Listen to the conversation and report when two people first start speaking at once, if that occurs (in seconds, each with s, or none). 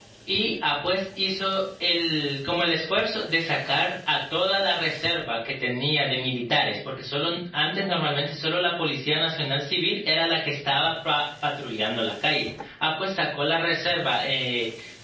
none